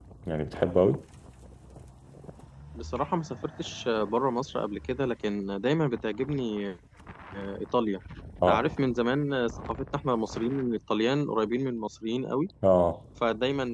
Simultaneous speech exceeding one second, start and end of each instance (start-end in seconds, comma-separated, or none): none